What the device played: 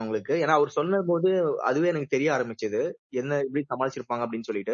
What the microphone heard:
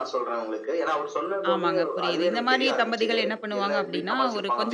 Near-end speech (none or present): present